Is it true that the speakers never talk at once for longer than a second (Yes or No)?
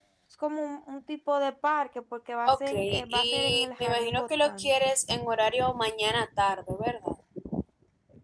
No